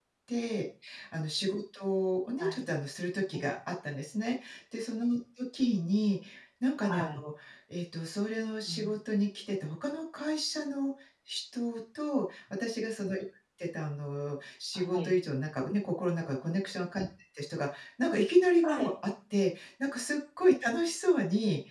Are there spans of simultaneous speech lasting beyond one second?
No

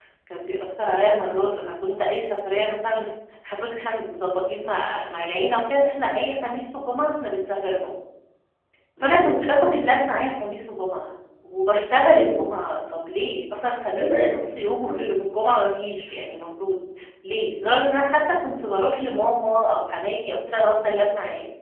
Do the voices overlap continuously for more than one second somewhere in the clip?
No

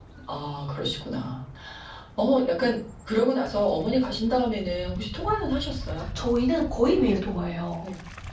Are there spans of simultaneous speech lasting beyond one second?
No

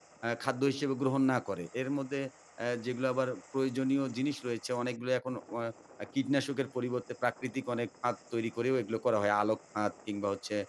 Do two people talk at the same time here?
No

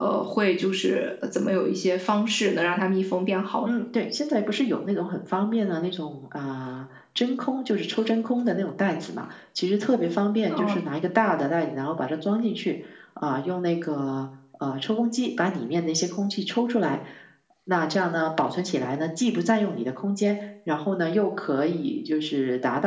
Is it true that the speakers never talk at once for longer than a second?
Yes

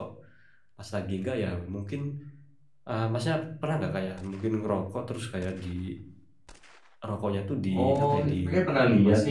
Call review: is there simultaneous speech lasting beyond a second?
Yes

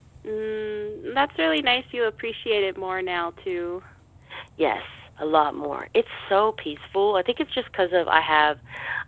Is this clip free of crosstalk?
Yes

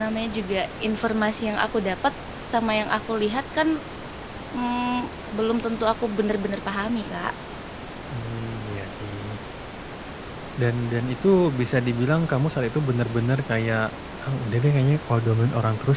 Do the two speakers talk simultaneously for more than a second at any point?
No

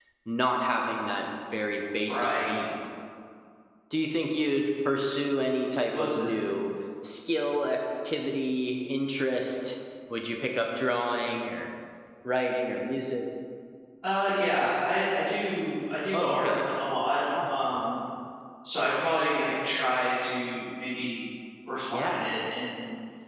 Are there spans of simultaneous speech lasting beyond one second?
No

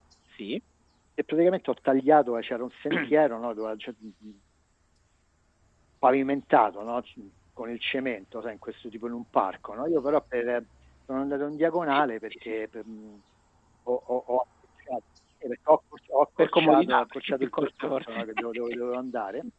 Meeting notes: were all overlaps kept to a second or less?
No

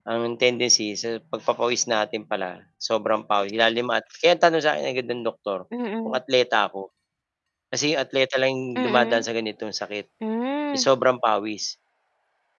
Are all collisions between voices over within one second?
Yes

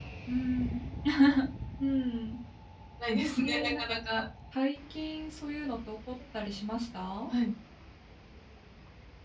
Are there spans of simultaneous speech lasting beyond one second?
No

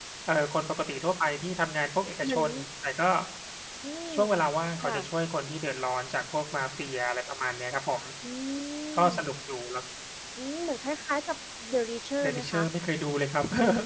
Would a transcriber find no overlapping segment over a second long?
Yes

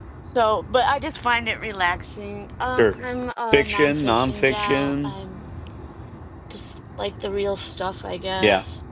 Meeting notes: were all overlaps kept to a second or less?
No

